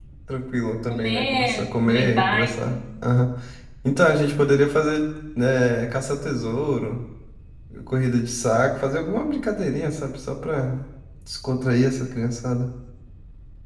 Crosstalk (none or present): present